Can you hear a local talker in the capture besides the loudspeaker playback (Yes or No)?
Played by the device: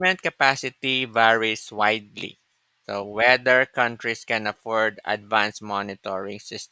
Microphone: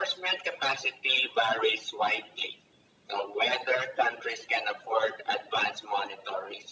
No